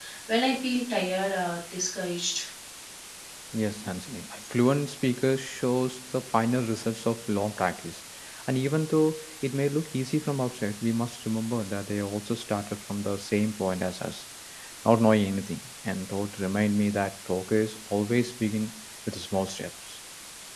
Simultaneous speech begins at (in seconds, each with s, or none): none